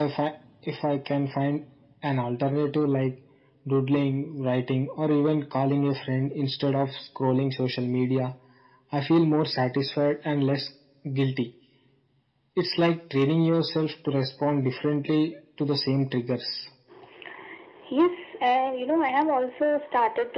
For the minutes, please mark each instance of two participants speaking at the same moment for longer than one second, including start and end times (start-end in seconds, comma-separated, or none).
none